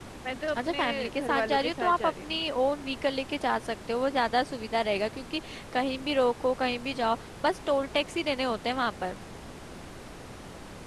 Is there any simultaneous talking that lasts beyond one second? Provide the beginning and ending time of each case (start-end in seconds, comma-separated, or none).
0.6-2.4